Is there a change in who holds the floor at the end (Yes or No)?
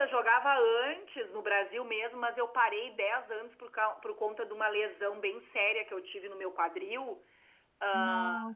No